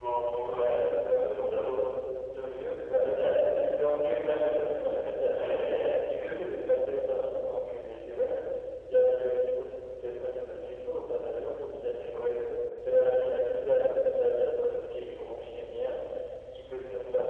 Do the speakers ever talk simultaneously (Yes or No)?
Yes